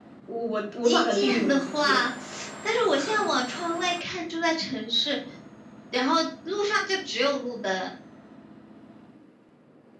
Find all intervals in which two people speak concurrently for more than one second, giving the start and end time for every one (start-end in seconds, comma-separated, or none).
0.8-2.1